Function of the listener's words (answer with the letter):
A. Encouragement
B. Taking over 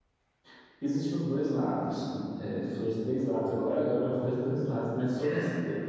A